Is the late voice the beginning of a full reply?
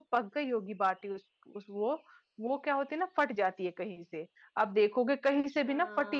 No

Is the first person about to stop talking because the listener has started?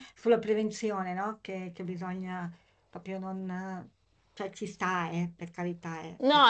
Yes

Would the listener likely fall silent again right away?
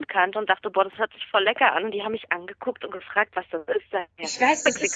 No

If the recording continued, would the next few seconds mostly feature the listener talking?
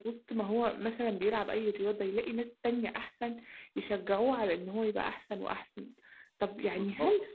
No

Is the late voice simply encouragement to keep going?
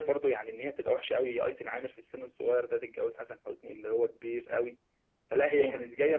Yes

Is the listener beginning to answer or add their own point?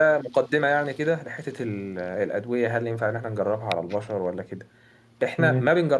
No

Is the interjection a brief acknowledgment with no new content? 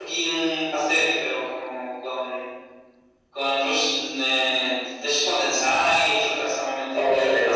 No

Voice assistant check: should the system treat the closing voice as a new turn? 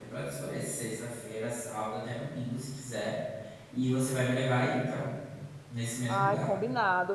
Yes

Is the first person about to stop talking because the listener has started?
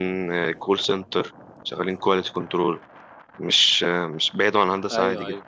Yes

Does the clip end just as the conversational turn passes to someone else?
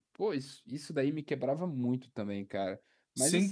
Yes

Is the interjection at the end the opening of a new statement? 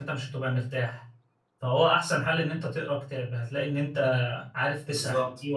No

